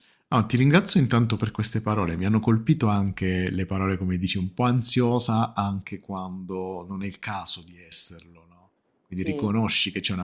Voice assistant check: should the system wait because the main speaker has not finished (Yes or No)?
Yes